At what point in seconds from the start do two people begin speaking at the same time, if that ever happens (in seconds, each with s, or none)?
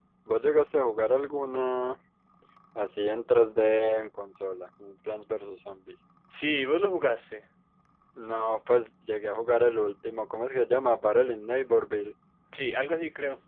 none